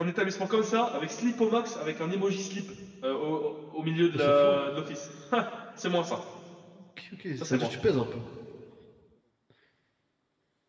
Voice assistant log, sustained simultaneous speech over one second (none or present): none